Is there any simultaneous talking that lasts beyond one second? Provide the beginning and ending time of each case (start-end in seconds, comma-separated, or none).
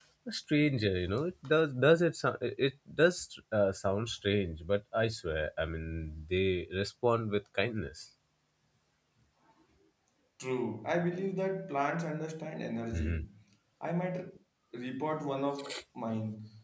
none